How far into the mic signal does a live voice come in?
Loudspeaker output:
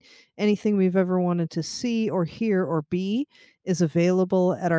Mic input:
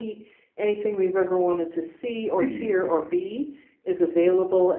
2.4 s

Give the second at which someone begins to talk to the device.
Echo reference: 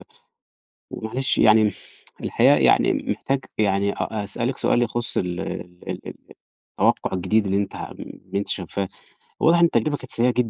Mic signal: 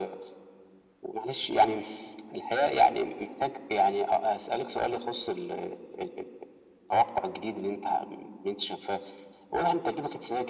none

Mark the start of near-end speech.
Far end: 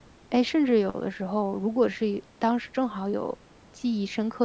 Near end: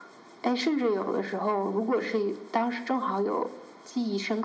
none

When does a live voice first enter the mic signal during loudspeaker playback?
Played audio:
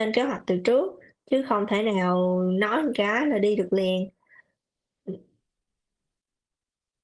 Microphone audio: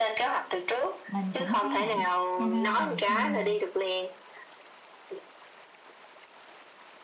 1.1 s

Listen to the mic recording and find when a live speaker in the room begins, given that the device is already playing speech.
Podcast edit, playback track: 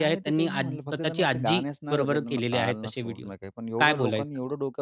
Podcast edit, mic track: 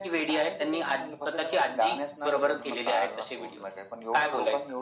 none

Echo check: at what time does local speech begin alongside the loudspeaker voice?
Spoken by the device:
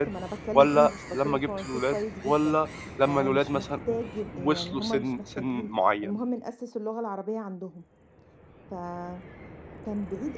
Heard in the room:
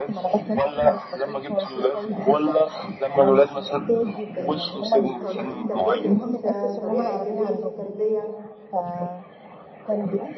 4.2 s

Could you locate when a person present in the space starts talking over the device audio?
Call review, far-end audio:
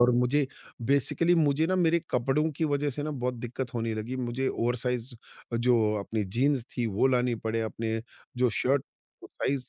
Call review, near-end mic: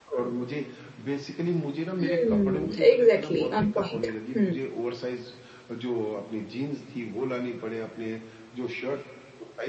2.0 s

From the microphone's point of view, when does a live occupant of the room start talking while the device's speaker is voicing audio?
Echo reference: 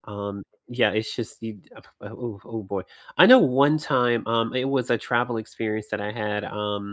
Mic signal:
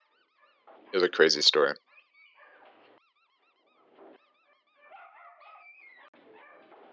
0.9 s

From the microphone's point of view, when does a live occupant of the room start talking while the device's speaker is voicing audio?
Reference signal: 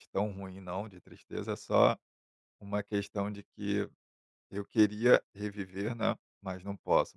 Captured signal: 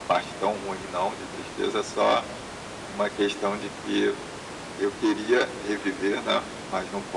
none

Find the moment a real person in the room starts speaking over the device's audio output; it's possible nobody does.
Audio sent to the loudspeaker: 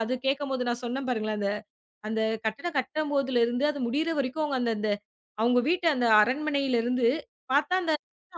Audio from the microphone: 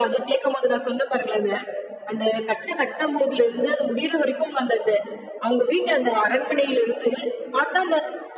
none

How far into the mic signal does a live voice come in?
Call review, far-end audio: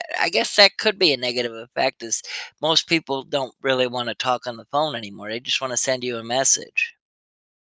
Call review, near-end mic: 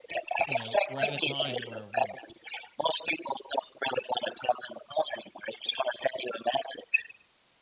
0.5 s

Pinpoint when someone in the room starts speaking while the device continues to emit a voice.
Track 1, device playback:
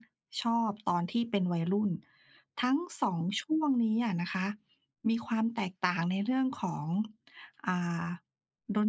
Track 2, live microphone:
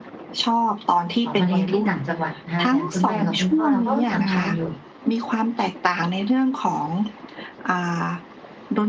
1.2 s

